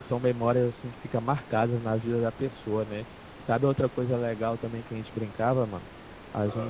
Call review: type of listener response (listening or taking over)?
listening